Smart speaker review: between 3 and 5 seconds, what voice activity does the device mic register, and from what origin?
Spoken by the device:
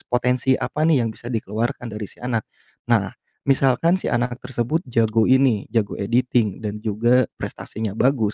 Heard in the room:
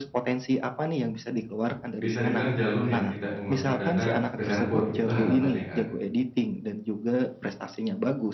both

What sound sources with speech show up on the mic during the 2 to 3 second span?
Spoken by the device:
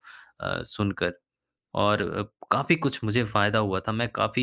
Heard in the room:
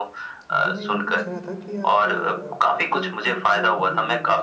both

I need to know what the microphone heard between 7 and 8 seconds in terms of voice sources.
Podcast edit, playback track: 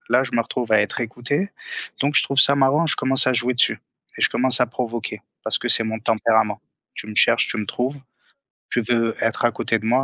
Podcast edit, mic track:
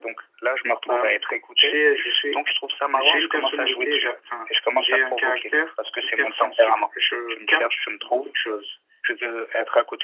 both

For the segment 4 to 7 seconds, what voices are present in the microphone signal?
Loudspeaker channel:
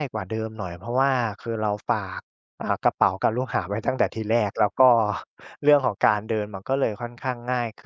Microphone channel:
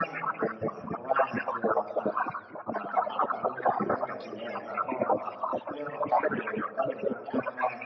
echo only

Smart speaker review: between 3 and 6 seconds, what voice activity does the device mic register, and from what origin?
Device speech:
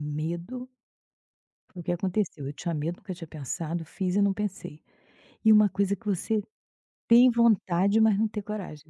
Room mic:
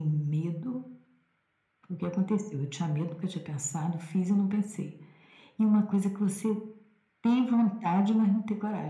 echo only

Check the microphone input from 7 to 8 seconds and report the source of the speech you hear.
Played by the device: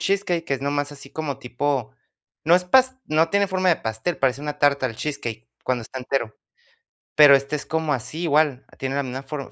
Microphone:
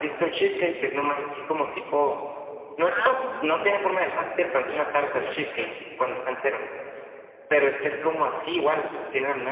echo only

